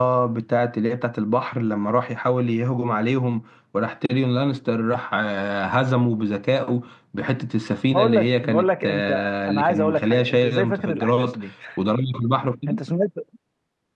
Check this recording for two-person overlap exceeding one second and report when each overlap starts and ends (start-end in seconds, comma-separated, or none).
7.9-11.4